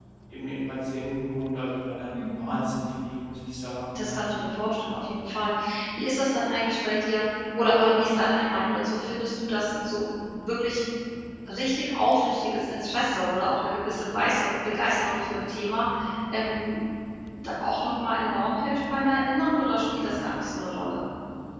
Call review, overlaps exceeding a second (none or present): none